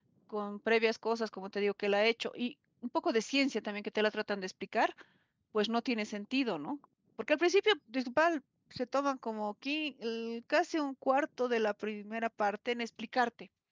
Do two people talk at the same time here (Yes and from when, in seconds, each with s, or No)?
No